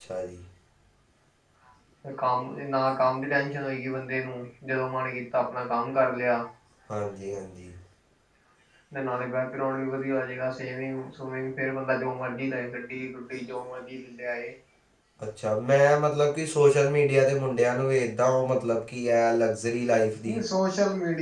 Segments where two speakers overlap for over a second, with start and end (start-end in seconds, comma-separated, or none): none